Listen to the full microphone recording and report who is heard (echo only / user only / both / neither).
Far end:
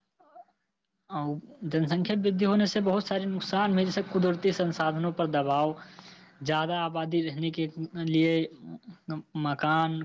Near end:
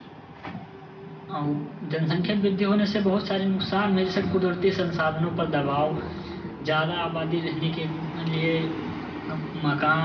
echo only